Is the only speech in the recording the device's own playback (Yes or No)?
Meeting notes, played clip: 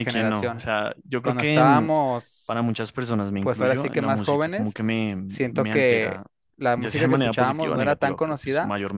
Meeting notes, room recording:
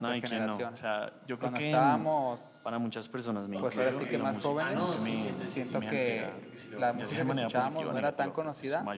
No